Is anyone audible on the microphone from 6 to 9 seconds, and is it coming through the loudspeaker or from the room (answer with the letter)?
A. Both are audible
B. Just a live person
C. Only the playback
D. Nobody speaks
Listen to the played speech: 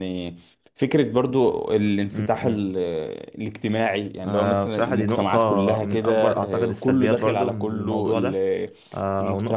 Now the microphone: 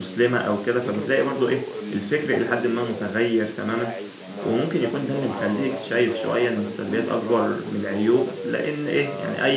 A